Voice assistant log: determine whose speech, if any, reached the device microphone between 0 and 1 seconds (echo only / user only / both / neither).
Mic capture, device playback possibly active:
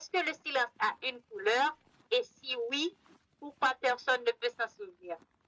echo only